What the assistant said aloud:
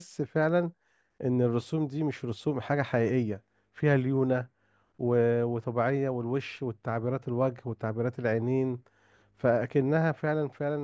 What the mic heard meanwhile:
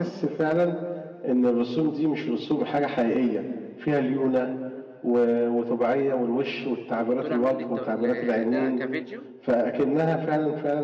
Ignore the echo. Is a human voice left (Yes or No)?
Yes